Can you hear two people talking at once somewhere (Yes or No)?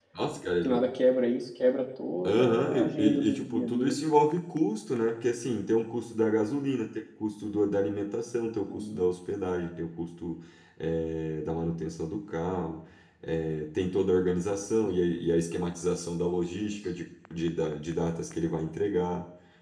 Yes